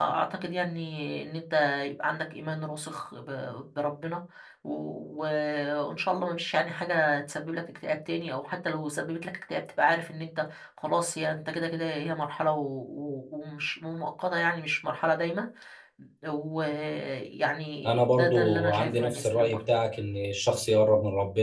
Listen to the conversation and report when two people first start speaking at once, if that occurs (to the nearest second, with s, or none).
18 s